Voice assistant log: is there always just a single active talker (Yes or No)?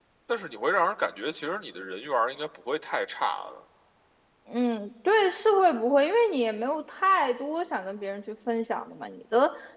Yes